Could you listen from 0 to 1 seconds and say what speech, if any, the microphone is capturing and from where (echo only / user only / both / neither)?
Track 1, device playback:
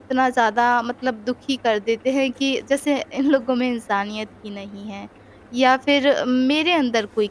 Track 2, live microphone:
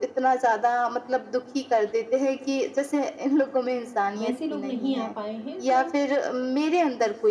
echo only